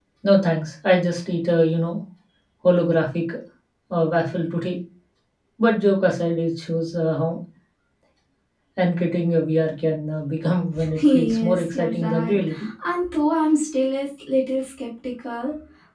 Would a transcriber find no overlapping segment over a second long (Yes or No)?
No